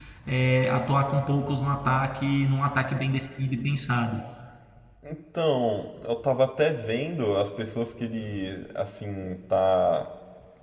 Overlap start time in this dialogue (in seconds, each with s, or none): none